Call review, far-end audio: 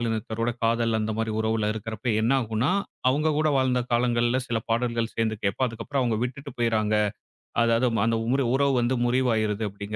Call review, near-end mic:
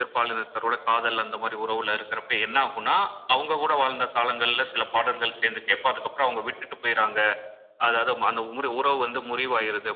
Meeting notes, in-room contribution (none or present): none